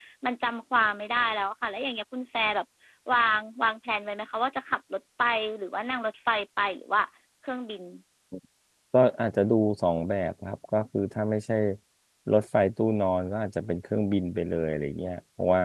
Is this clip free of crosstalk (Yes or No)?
Yes